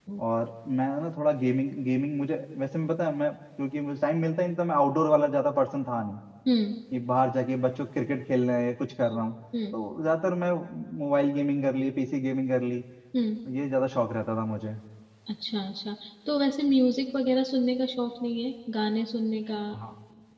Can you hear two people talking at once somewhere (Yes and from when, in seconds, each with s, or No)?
No